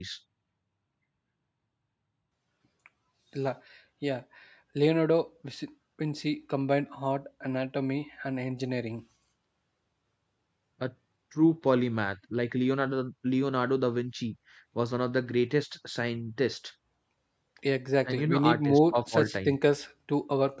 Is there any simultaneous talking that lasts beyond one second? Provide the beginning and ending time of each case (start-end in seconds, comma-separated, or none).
18.1-19.6